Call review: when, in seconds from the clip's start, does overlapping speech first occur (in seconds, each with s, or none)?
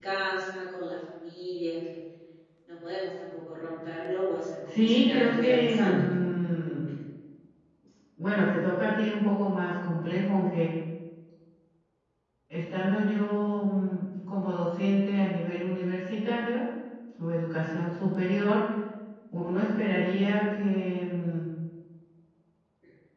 4.7 s